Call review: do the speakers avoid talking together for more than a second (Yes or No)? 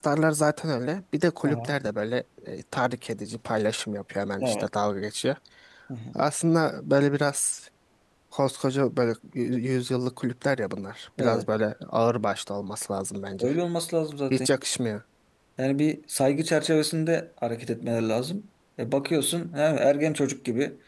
Yes